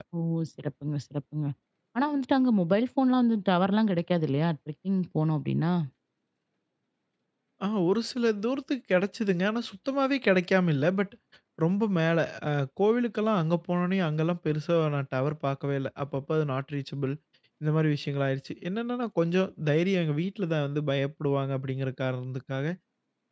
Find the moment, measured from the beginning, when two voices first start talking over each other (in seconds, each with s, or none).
none